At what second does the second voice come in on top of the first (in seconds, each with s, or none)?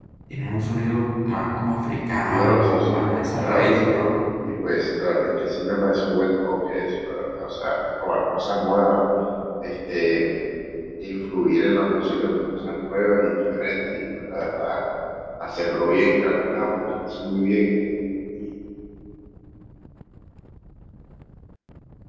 2.2 s